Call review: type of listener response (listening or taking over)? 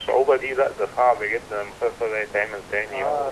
taking over